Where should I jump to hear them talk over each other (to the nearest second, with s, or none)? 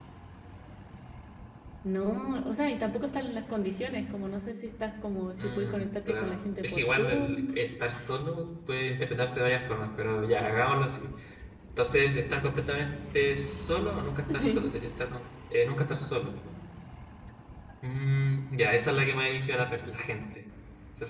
5 s